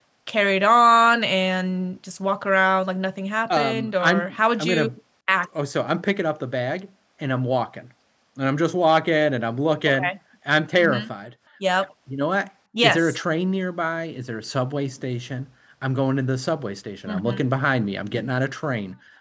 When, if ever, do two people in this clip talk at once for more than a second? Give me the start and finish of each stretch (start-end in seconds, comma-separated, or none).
3.6-4.9